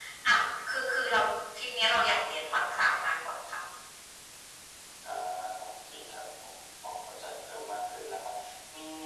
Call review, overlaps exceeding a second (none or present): none